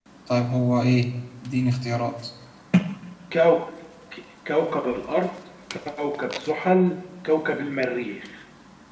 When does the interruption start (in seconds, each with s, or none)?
none